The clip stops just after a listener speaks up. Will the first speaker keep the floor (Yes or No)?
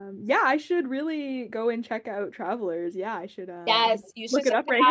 No